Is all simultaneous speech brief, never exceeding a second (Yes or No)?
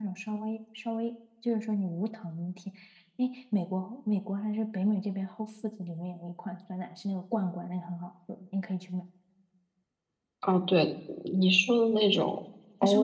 Yes